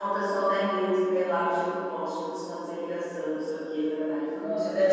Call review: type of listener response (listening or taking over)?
taking over